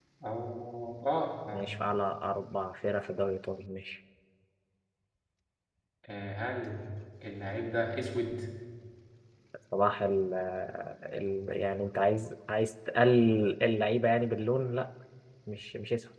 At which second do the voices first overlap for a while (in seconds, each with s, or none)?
none